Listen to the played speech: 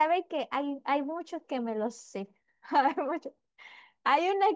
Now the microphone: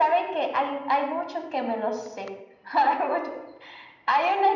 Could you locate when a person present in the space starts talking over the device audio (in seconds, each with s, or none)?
none